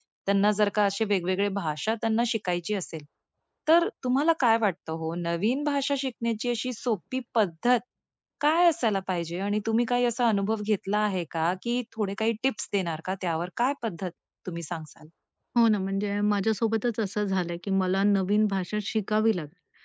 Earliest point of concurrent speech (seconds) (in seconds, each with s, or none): none